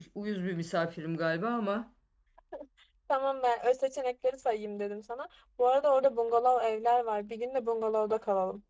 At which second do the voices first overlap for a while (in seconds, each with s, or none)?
none